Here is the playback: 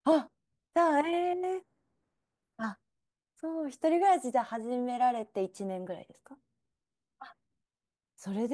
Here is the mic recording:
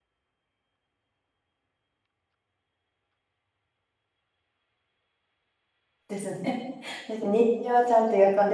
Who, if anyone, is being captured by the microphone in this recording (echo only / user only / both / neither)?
user only